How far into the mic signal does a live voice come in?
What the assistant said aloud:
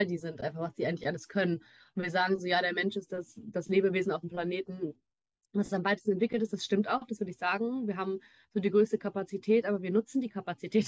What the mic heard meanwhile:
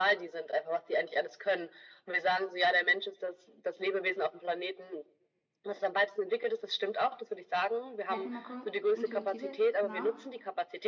8 s

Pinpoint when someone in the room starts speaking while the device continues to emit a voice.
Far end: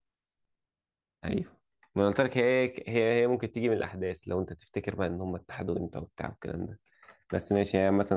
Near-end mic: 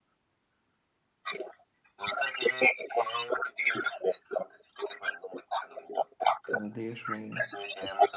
7 s

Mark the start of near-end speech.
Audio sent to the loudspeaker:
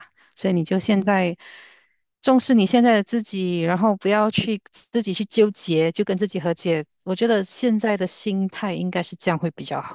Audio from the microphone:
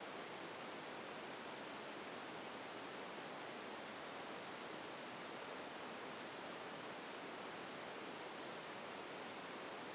none

